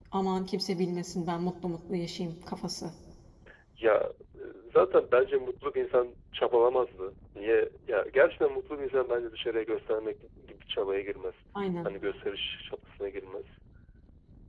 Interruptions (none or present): none